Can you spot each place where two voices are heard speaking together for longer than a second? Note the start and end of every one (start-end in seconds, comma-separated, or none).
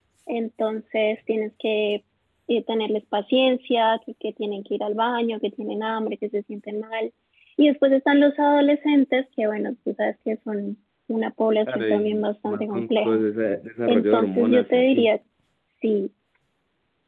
11.7-13.2, 13.8-15.1